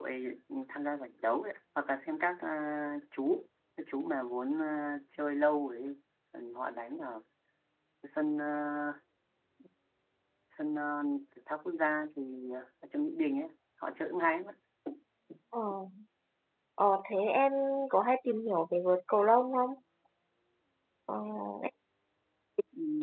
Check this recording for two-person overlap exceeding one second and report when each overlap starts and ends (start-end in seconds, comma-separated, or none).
none